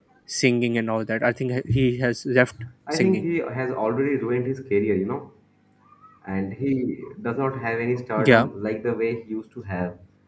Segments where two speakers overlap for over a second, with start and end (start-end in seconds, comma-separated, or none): none